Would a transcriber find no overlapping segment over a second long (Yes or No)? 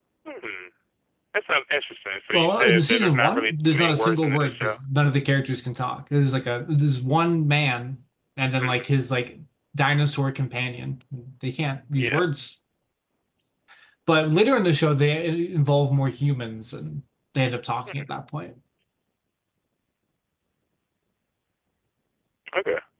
No